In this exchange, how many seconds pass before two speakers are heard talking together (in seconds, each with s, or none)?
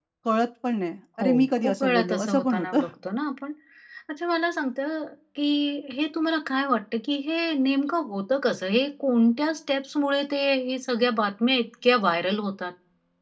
1.2 s